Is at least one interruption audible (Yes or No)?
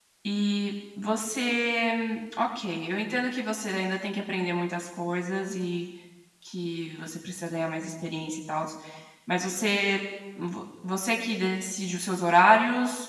No